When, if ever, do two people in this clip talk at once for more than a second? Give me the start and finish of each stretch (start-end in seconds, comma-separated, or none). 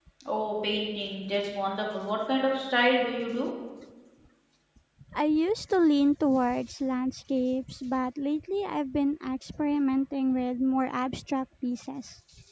none